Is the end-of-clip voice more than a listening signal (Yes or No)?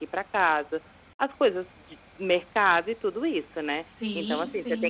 No